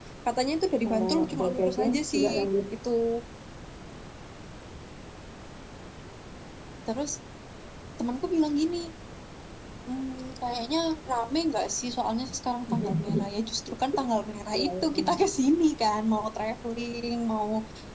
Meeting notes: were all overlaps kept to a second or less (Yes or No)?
No